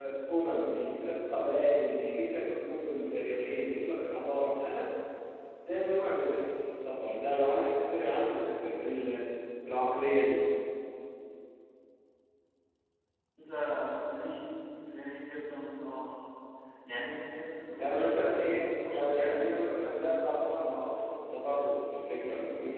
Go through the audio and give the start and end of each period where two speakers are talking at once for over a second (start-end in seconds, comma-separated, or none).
17.8-19.6